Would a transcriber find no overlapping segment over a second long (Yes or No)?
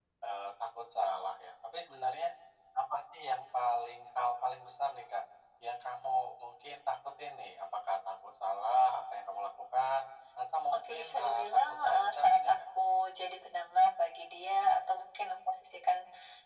No